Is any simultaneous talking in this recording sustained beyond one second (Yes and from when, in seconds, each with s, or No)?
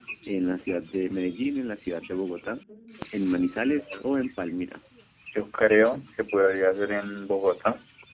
No